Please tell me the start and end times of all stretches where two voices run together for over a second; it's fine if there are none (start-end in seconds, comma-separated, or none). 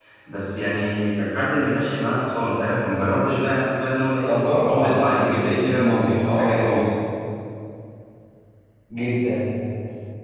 4.3-6.8